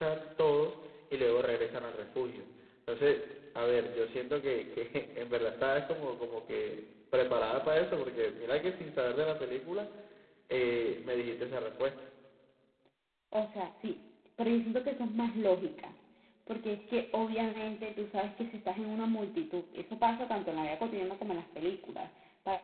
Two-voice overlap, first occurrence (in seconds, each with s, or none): none